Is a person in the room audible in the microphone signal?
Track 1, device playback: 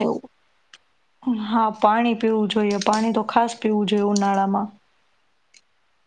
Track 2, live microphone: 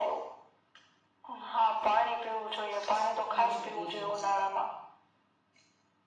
Yes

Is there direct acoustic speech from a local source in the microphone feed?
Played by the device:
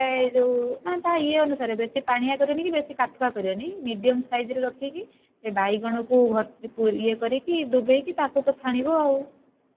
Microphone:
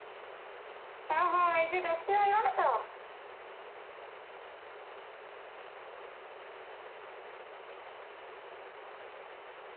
Yes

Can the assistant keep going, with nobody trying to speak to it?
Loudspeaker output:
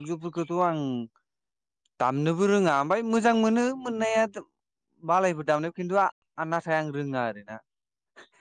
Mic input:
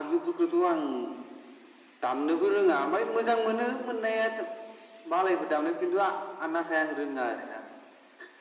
Yes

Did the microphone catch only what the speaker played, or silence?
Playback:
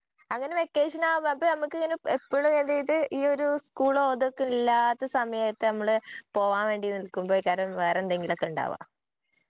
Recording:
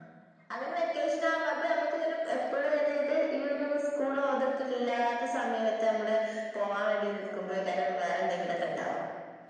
Yes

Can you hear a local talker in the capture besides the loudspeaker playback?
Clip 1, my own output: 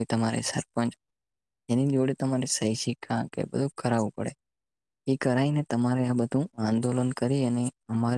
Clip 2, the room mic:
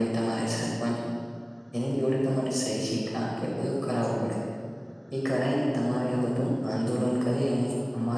No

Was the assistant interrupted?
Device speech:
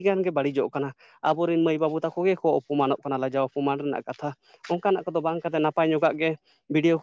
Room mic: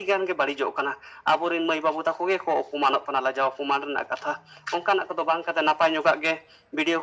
No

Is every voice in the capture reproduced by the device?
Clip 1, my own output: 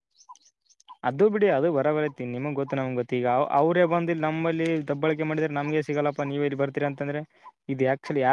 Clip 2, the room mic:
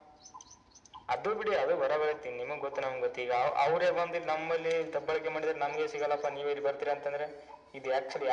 Yes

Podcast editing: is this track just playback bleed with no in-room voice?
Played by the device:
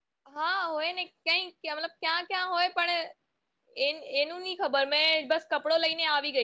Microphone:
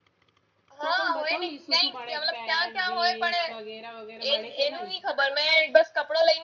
No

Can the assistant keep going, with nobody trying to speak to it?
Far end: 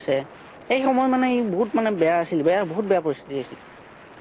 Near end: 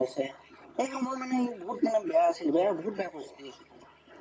Yes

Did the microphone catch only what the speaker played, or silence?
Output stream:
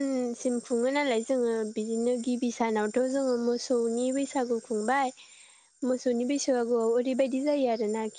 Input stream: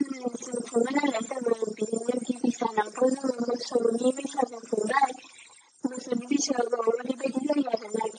Yes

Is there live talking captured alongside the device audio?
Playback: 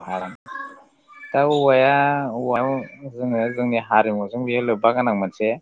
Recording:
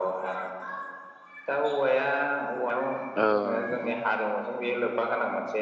Yes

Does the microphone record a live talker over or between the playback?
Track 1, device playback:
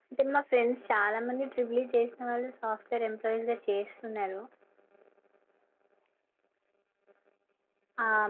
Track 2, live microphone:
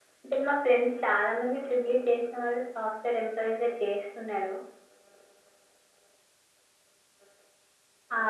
No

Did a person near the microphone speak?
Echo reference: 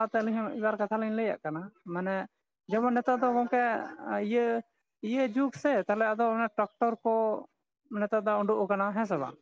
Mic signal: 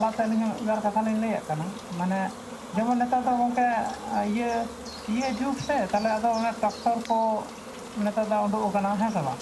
No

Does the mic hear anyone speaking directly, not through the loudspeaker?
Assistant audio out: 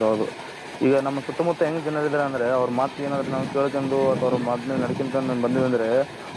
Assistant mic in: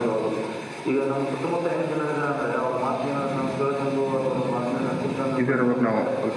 Yes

